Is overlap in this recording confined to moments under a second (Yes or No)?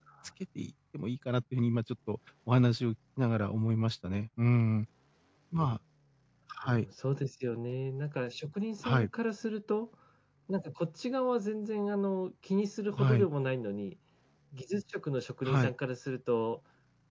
Yes